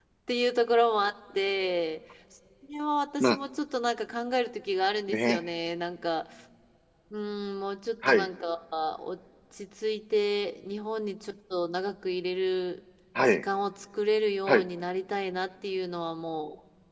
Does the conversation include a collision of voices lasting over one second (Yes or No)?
No